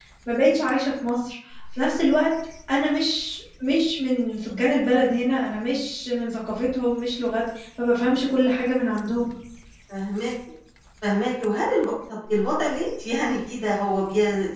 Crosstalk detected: No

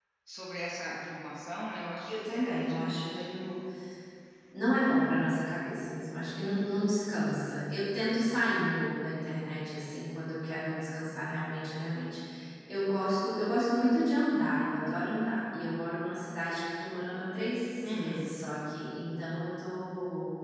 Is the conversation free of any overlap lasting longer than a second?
No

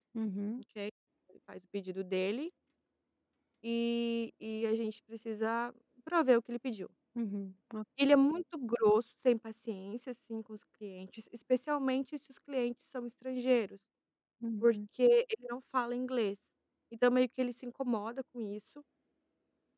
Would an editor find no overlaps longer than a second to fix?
Yes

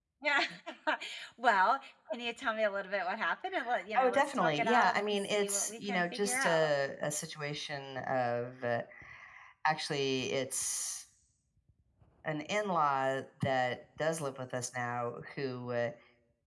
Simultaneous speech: Yes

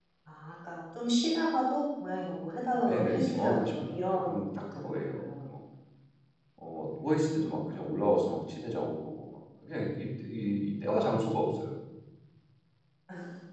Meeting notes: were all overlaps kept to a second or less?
No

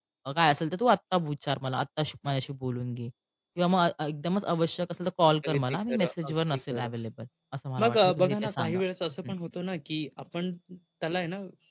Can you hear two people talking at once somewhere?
Yes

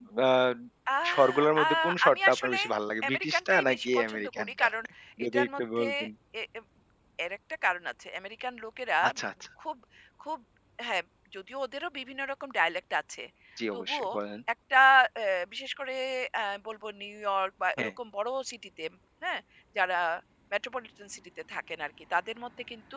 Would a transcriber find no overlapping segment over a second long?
No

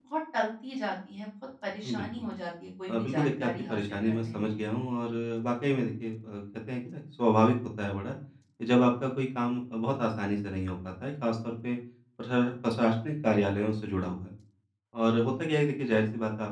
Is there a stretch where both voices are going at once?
Yes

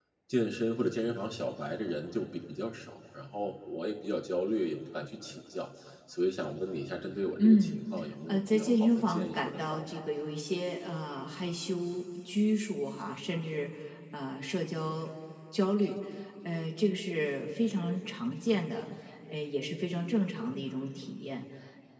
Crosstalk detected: Yes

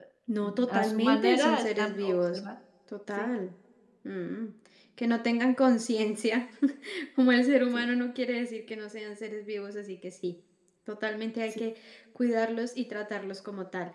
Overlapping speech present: Yes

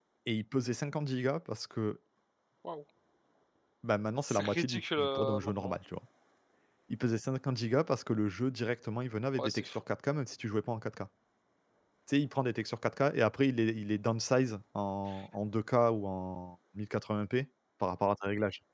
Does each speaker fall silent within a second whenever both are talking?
No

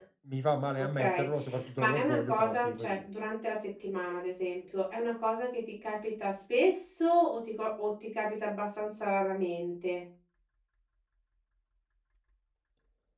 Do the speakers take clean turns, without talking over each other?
No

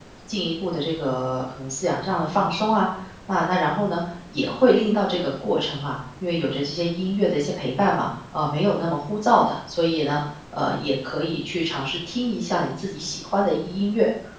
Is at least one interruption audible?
No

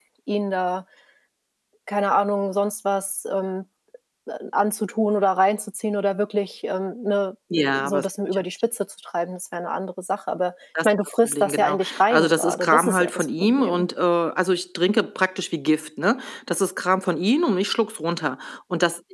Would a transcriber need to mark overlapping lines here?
Yes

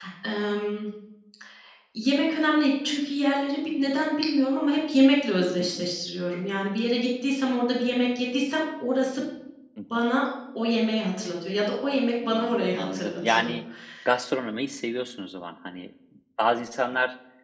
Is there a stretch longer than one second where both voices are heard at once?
Yes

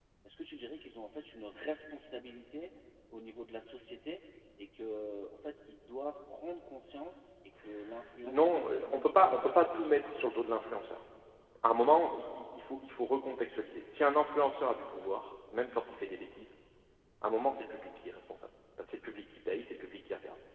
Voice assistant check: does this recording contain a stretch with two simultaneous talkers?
Yes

